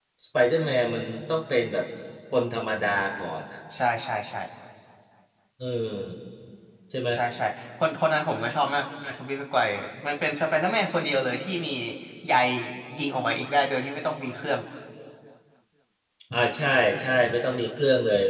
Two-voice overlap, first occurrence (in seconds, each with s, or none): none